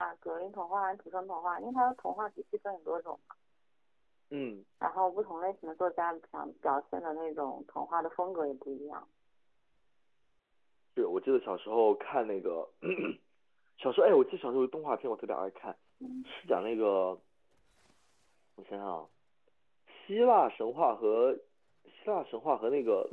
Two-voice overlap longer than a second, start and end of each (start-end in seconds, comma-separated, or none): none